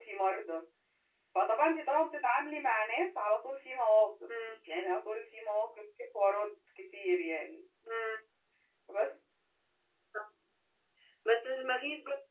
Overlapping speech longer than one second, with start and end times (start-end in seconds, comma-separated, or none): none